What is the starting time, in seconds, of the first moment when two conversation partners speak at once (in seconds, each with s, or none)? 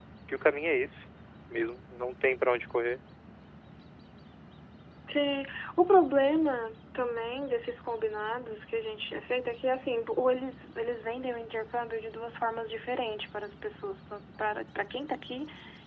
none